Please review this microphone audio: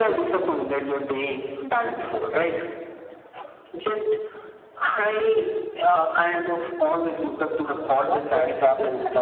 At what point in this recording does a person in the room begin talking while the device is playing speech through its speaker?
7.9 s

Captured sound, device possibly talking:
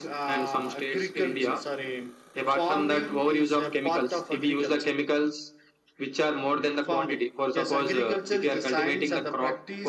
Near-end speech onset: none

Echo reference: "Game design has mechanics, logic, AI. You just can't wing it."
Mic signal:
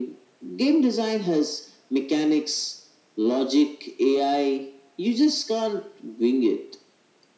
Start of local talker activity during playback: none

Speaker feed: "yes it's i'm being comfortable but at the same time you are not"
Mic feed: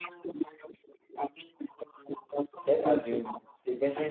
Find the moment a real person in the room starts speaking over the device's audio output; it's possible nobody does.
2.7 s

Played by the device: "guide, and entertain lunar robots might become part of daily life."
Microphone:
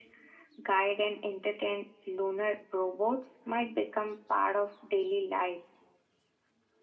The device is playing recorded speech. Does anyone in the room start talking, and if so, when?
none

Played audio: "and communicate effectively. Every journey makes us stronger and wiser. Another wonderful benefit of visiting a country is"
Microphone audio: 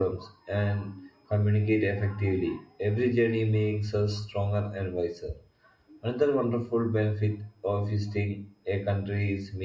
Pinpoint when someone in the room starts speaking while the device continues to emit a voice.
none

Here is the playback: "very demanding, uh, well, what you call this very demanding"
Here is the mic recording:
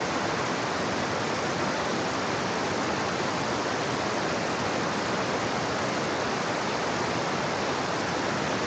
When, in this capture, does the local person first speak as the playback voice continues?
none

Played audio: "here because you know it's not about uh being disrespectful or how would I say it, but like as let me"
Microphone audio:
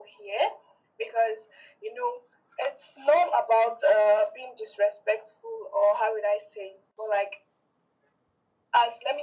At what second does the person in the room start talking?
none

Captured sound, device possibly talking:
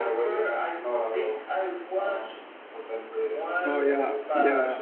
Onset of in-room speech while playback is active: 3.6 s

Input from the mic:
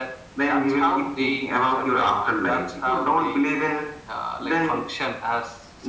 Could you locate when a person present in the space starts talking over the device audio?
none

